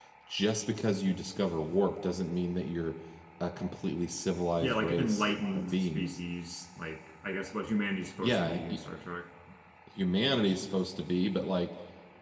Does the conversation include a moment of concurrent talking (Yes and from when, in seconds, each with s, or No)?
Yes, from 4.6 s